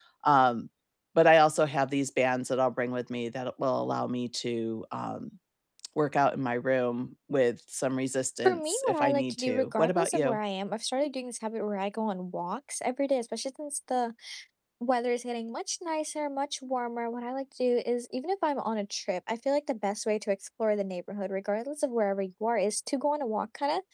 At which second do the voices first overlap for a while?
8.4 s

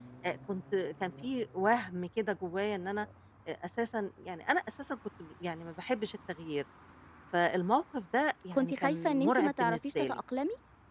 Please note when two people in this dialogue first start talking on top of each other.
8.5 s

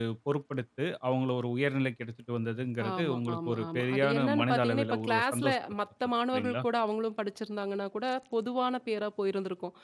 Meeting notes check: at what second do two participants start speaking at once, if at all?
2.8 s

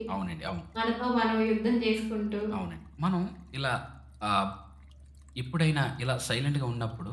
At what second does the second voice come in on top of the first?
none

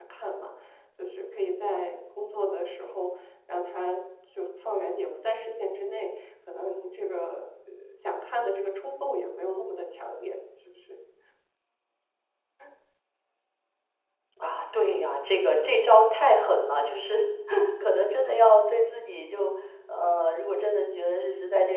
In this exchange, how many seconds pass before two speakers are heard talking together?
none

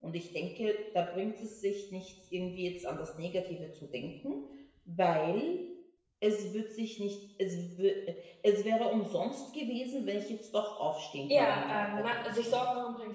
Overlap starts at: 11.3 s

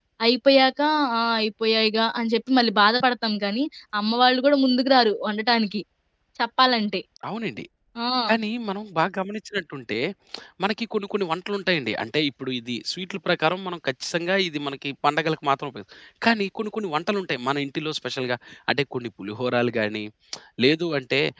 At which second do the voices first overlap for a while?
none

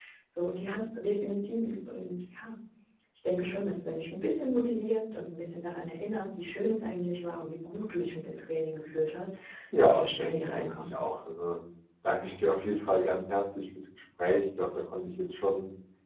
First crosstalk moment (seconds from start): 9.8 s

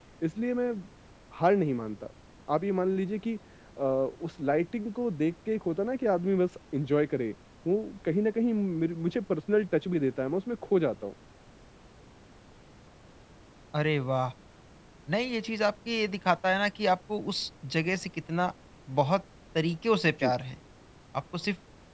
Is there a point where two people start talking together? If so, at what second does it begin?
none

